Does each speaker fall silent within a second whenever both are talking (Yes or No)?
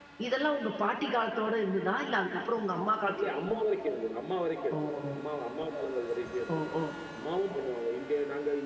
Yes